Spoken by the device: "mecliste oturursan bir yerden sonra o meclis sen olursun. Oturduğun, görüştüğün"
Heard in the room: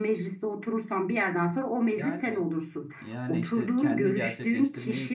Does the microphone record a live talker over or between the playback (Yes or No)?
Yes